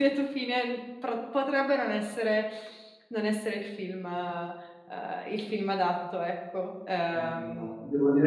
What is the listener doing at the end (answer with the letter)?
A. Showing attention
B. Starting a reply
B